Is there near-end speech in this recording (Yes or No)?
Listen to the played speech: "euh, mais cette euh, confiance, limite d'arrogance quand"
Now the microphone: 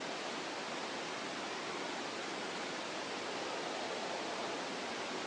No